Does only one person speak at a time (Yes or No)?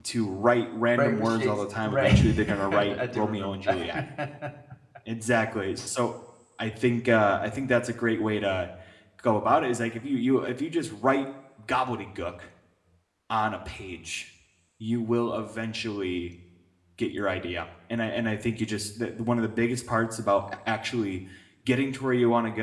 No